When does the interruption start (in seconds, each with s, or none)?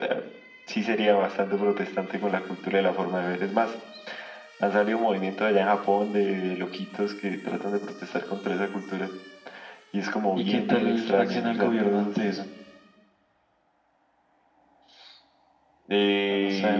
10.4 s